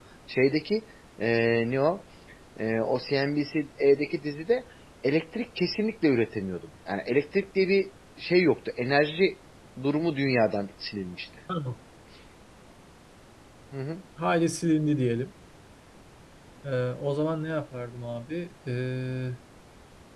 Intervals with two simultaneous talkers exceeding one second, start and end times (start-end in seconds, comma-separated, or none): none